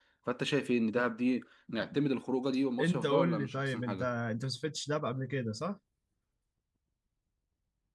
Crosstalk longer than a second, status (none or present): present